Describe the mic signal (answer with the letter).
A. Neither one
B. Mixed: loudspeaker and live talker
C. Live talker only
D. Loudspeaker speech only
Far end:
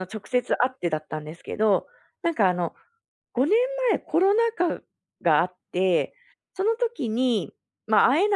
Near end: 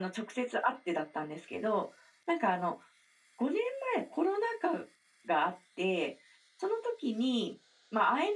D